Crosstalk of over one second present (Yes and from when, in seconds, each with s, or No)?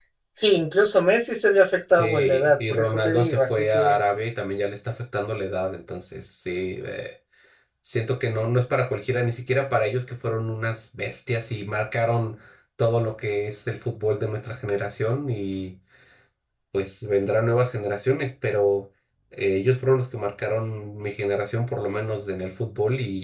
Yes, from 2.0 s